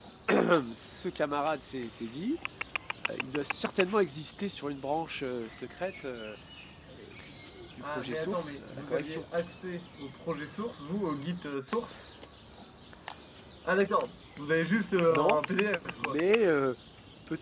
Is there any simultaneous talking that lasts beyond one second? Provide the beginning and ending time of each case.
7.8-9.2

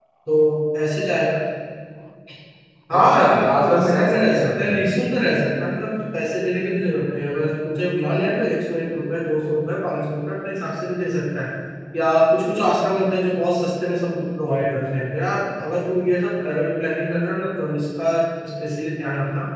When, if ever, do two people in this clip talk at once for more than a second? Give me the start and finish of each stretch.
2.9-4.9

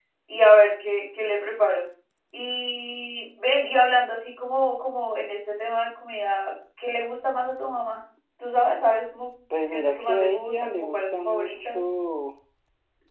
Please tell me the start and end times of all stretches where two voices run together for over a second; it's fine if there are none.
9.7-11.8

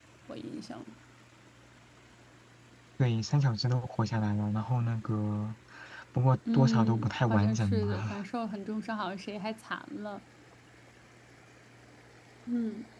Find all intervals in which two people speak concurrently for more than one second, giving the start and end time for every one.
6.5-8.2

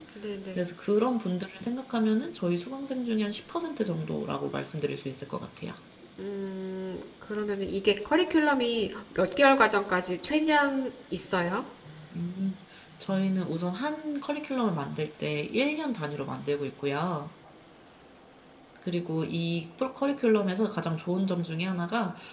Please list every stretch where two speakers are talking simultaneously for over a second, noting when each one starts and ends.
none

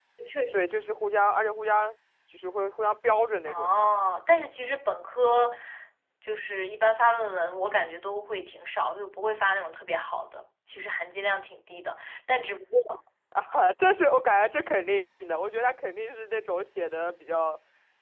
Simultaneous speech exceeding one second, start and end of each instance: none

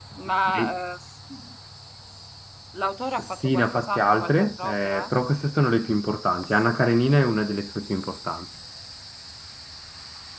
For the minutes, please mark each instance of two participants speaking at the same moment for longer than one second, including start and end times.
3.2-5.1

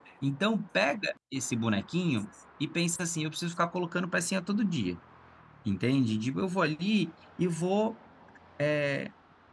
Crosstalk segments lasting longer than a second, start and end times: none

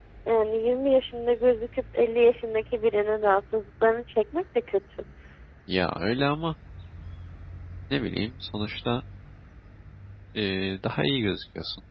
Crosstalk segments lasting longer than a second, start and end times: none

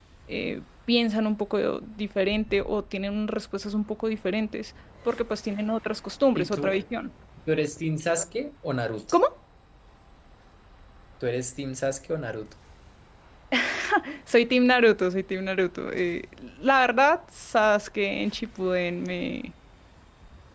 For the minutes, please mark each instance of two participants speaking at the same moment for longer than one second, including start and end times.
none

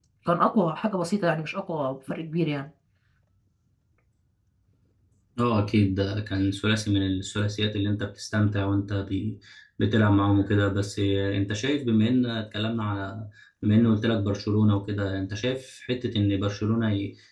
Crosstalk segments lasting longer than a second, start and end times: none

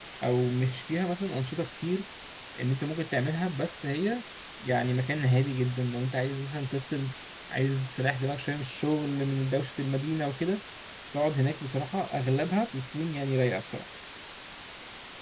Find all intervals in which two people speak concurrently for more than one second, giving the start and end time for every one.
none

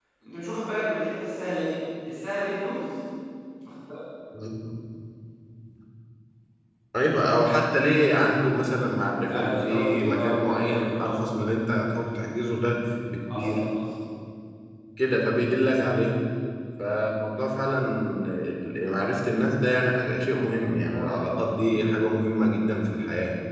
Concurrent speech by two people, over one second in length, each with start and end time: 9.3-11.2

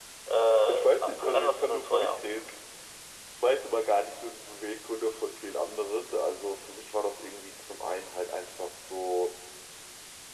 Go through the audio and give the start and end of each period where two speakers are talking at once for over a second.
0.7-2.2

